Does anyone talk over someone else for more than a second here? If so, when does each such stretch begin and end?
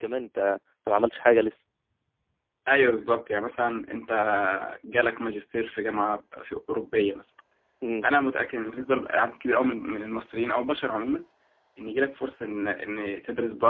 none

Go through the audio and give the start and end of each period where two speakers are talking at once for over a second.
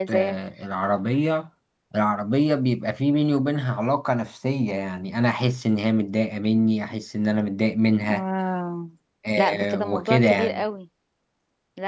9.4-10.6

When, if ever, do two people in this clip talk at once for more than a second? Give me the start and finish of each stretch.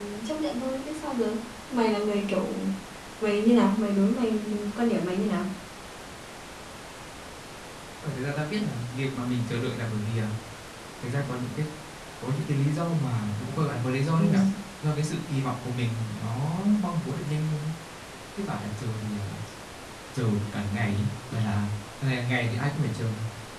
none

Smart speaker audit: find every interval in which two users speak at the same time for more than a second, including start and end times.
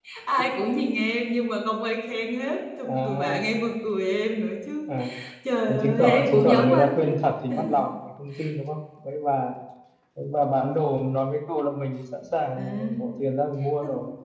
5.7-7.1

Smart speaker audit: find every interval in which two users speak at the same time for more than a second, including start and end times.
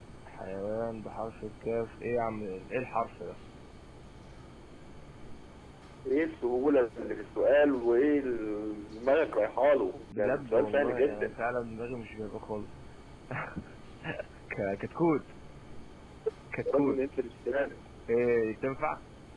10.1-11.3

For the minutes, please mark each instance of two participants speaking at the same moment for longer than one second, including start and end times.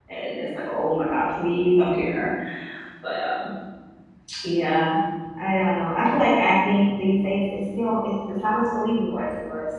none

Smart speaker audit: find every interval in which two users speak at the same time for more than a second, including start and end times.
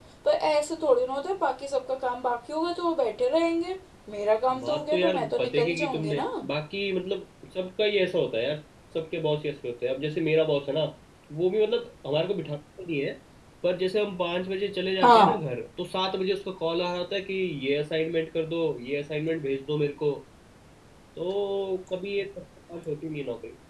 4.6-6.2

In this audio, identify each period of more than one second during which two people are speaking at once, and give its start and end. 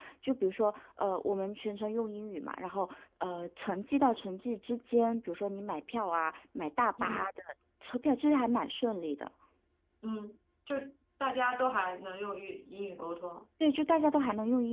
none

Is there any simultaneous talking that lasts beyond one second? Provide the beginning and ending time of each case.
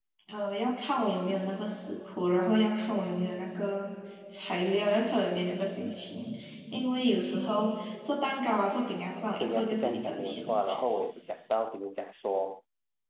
9.4-10.6

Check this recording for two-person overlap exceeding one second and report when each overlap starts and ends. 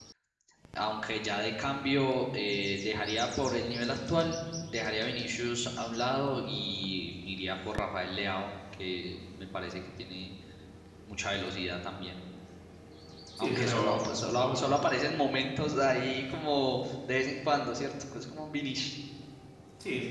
13.4-14.8

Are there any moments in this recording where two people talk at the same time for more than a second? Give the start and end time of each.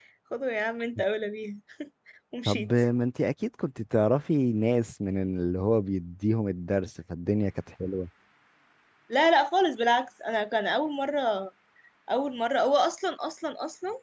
none

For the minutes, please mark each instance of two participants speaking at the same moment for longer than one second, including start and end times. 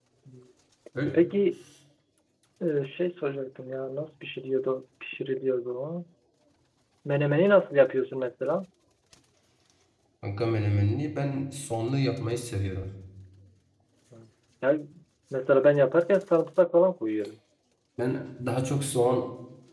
none

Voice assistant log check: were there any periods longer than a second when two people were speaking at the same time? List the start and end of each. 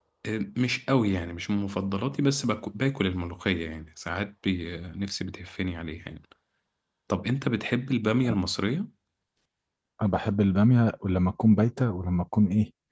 none

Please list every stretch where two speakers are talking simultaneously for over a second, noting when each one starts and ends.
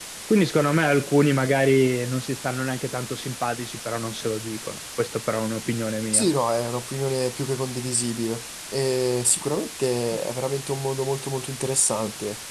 none

